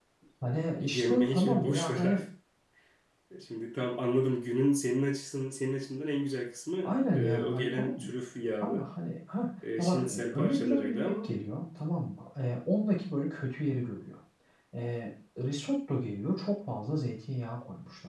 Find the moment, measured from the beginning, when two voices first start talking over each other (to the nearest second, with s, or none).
1 s